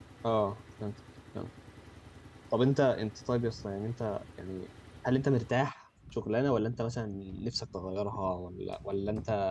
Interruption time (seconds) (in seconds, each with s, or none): none